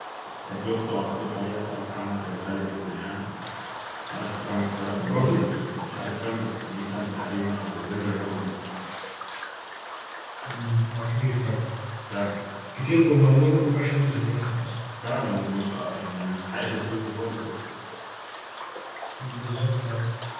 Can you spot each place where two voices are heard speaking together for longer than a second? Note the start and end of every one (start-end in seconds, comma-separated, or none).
none